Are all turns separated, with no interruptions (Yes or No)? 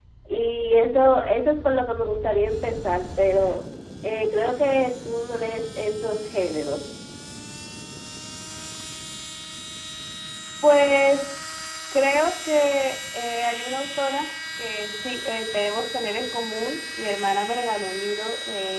Yes